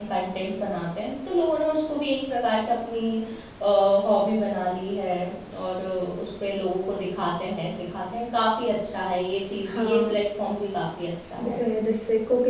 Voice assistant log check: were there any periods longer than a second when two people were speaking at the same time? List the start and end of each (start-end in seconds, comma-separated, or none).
none